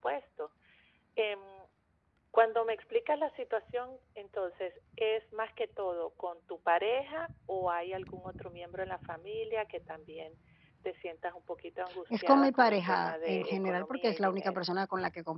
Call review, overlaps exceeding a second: present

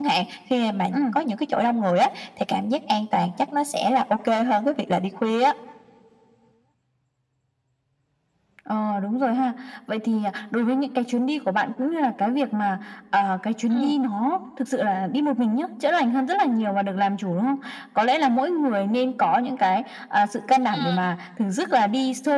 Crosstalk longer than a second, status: none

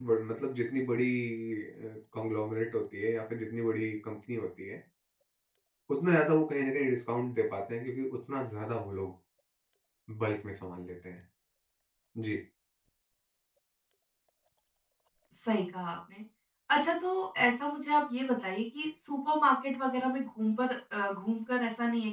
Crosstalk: none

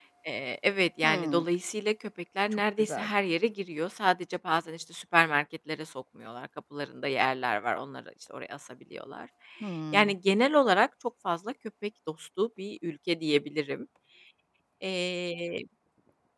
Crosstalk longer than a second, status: none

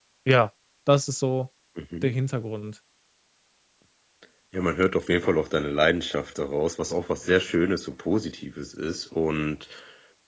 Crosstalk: none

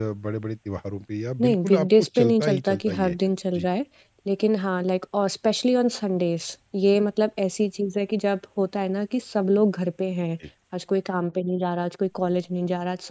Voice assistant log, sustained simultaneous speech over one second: present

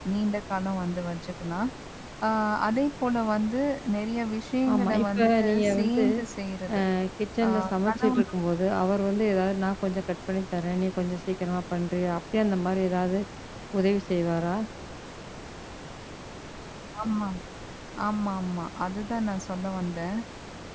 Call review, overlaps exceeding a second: present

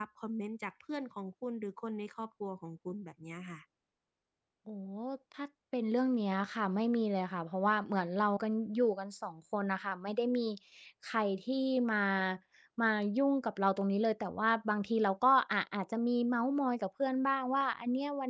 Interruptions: none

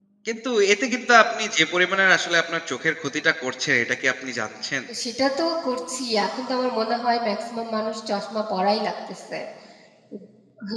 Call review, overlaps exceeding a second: none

